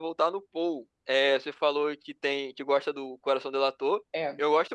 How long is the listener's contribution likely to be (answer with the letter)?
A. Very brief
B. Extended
A